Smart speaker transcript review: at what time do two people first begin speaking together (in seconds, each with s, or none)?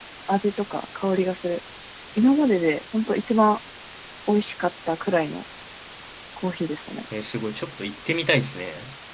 none